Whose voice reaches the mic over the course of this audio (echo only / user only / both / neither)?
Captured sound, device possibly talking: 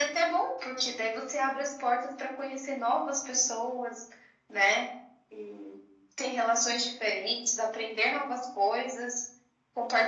echo only